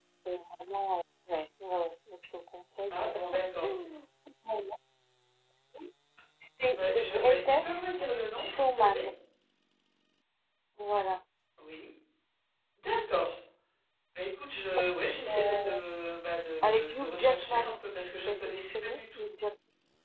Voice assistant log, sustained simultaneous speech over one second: present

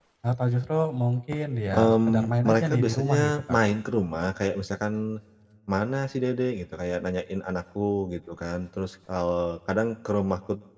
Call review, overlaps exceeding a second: present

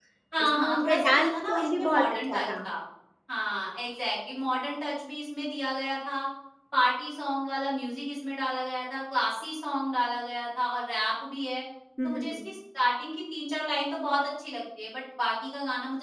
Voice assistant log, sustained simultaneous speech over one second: present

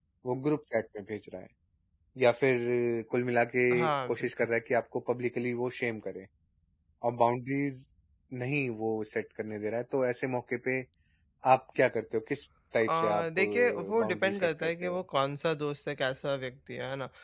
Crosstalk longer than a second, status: present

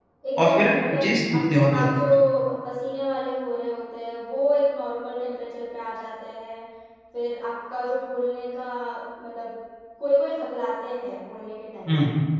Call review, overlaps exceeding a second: present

